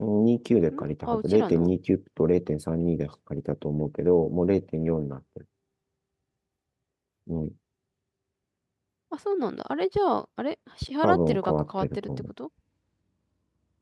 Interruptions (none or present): present